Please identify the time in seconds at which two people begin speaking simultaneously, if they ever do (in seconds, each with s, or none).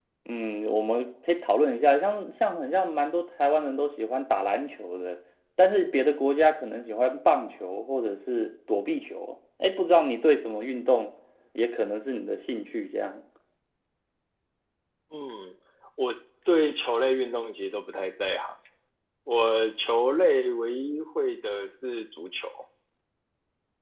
none